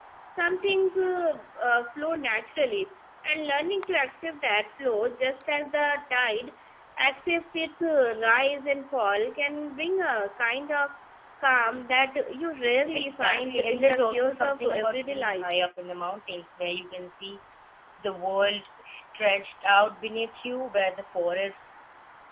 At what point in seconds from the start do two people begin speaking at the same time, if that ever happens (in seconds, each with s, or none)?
12.9 s